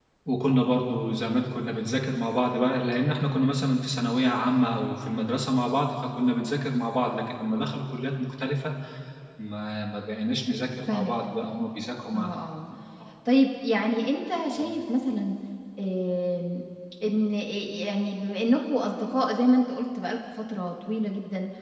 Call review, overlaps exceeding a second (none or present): none